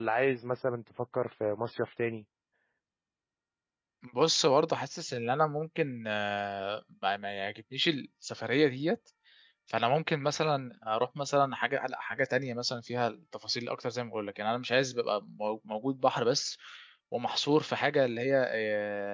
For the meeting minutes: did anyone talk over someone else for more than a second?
No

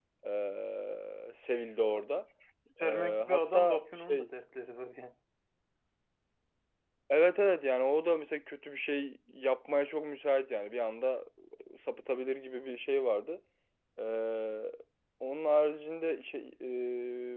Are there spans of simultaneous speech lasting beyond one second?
Yes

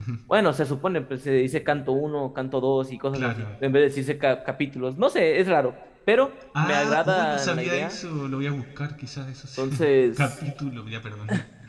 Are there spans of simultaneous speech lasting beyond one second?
Yes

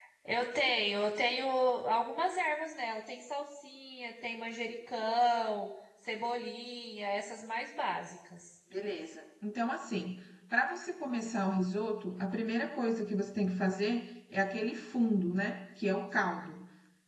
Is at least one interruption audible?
No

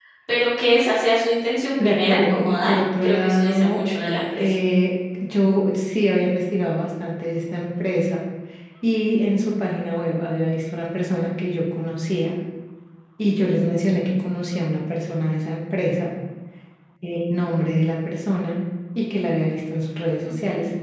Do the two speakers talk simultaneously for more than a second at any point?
Yes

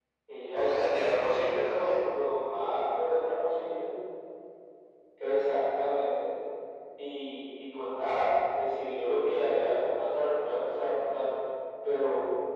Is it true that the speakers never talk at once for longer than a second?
No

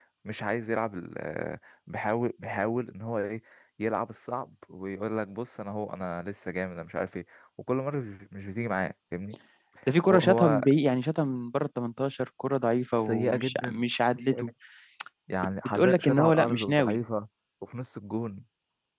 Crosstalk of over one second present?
Yes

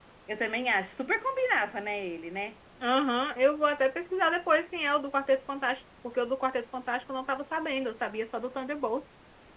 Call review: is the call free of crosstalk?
Yes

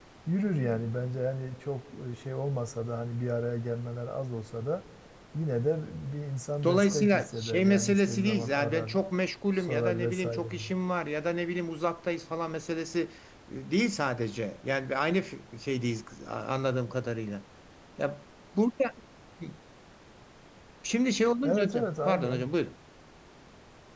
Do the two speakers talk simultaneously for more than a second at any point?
Yes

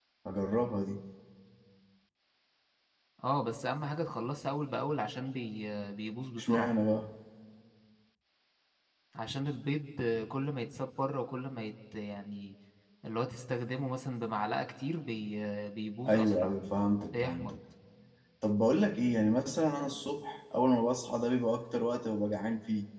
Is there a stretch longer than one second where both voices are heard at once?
No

